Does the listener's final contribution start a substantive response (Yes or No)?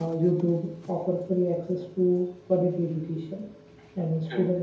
No